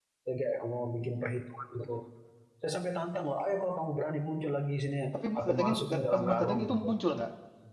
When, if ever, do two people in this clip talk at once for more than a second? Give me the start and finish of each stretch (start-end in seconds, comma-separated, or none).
5.1-6.9